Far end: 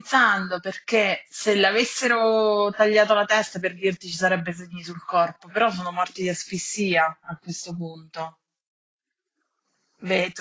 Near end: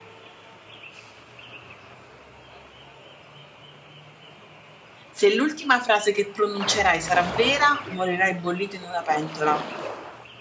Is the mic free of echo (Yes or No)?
Yes